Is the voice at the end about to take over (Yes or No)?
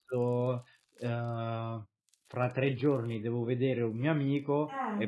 No